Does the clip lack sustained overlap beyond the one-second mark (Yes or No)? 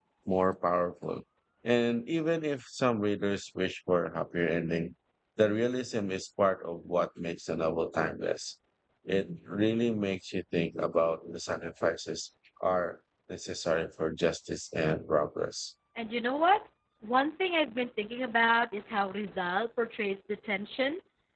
Yes